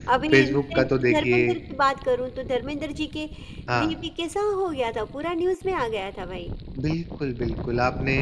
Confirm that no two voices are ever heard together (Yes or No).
No